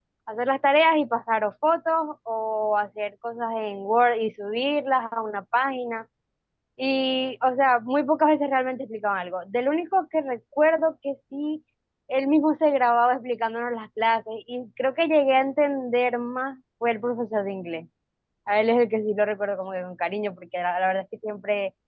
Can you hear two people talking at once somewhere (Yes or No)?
No